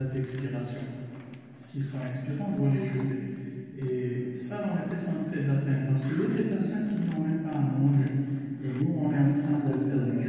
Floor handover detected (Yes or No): No